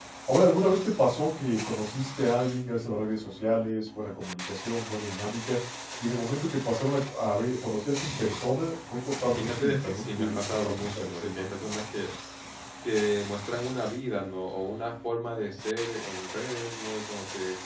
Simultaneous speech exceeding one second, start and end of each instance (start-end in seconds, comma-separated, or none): 9.4-11.5